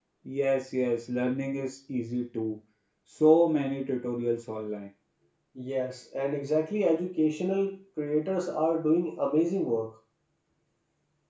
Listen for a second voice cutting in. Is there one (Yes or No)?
No